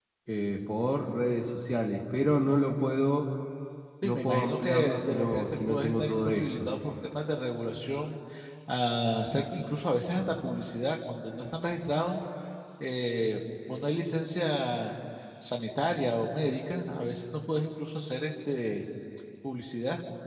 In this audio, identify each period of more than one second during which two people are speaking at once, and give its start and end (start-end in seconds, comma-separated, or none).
4.0-6.7